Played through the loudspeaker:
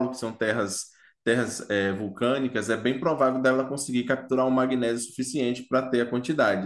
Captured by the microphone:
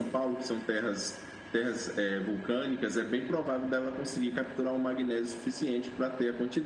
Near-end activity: none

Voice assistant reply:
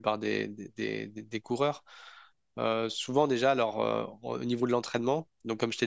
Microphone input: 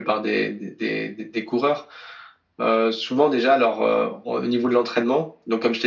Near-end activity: none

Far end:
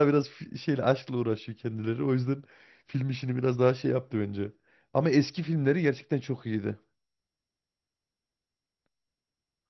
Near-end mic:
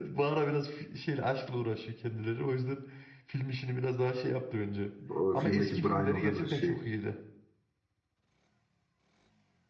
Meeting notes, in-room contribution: present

